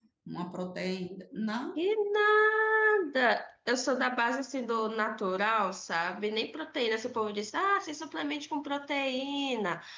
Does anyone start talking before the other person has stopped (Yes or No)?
No